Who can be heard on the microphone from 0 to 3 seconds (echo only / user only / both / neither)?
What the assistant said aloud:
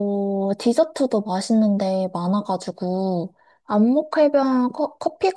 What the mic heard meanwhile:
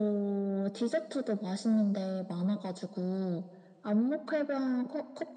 echo only